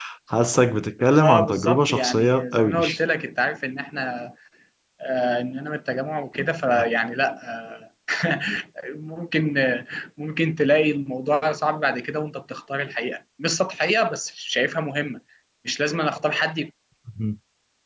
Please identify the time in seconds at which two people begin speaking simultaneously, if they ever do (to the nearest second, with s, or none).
1 s